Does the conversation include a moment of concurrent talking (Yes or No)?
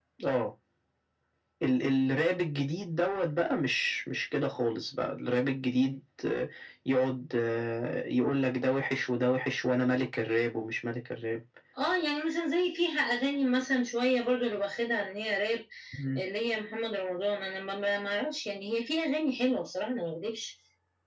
No